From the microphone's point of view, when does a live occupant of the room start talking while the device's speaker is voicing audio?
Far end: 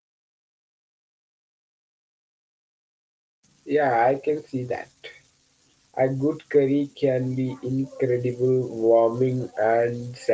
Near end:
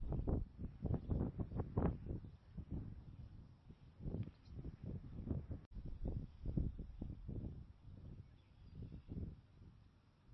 none

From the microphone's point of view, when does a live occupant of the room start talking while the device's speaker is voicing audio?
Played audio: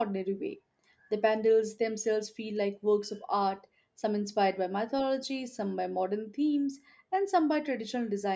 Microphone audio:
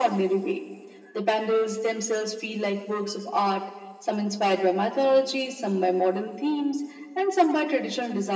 none

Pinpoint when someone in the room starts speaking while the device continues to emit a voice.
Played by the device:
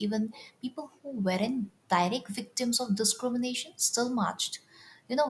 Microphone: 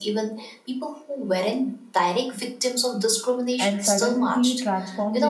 3.6 s

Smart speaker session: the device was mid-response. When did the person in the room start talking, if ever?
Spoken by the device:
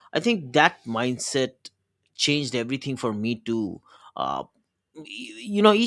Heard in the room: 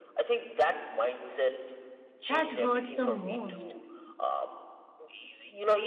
2.3 s

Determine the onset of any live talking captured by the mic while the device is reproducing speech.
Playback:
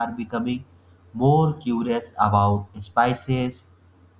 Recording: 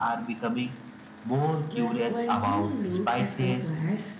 1.7 s

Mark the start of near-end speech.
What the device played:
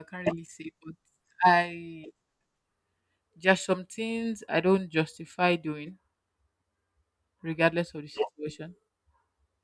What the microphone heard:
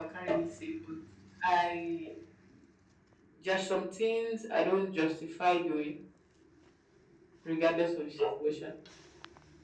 none

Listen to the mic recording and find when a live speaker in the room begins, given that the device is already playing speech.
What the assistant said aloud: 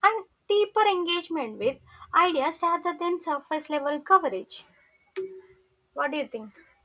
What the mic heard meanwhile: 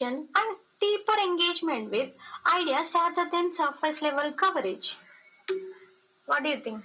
none

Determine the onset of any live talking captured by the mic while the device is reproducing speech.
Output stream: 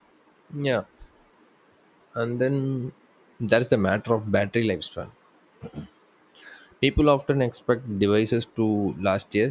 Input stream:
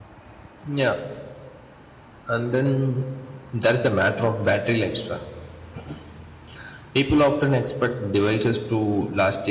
none

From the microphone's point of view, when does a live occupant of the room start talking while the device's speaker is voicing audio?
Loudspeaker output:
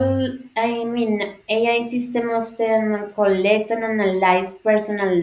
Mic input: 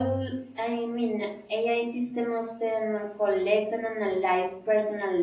none

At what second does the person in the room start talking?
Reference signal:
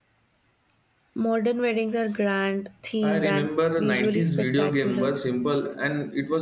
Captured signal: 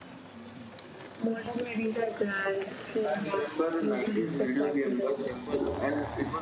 none

